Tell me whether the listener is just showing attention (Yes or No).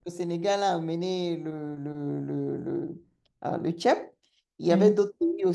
Yes